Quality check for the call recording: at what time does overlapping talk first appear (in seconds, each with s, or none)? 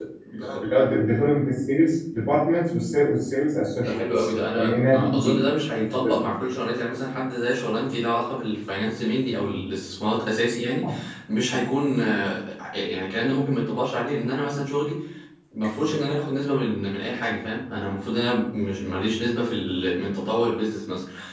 3.8 s